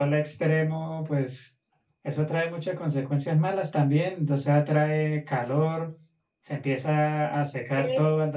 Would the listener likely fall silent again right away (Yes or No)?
Yes